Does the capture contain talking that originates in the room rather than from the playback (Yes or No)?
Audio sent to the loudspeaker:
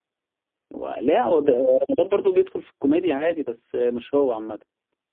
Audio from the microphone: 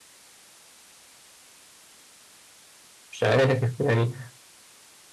Yes